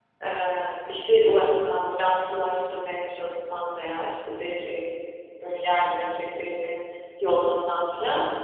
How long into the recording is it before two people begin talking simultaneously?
none

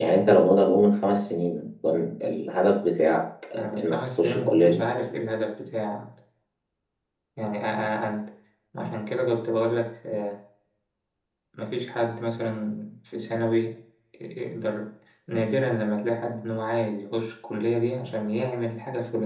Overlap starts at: 4 s

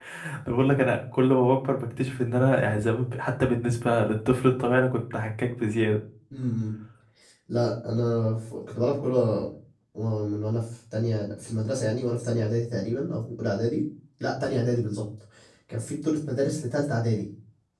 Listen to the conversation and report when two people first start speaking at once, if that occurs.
none

